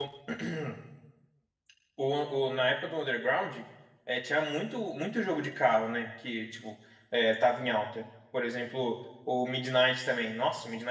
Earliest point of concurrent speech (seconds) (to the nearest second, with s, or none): none